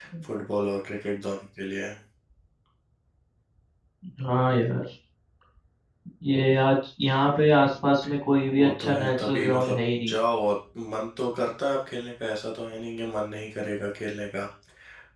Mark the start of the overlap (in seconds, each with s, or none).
8.5 s